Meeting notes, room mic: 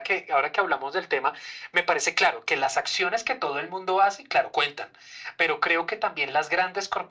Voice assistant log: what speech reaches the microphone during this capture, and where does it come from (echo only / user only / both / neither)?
echo only